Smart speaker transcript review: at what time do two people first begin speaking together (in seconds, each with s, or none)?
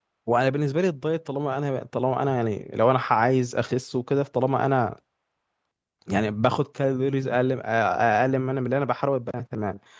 none